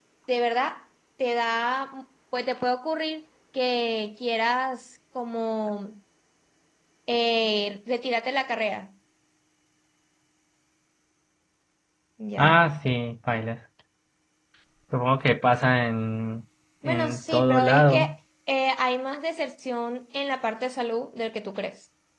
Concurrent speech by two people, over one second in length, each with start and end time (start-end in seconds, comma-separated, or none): 16.9-18.1